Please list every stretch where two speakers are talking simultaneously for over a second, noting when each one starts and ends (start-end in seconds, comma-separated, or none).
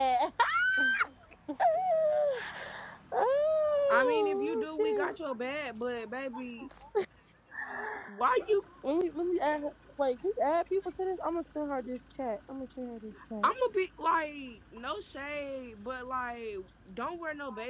3.9-5.1